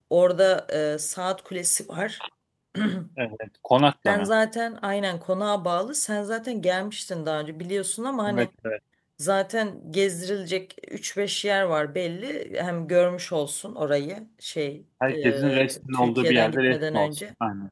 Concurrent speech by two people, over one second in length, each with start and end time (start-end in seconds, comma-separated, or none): 15.1-17.2